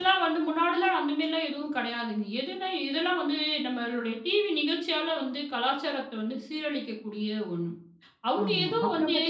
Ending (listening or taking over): taking over